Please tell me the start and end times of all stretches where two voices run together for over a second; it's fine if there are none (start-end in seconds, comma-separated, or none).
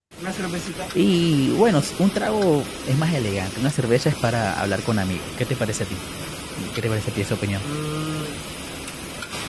none